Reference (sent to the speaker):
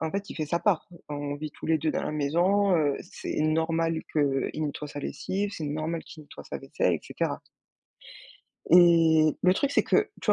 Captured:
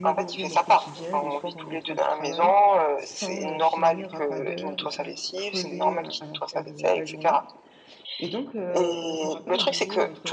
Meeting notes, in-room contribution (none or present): present